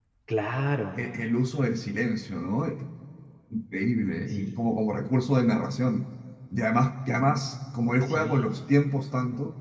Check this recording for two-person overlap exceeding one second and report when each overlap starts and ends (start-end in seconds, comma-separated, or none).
none